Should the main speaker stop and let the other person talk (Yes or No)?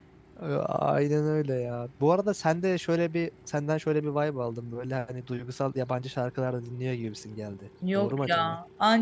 Yes